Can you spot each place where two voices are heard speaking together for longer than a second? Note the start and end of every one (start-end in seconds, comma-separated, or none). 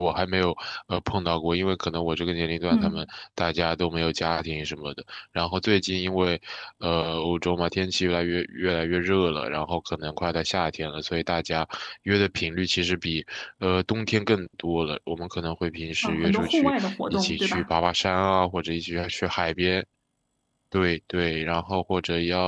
16.0-17.7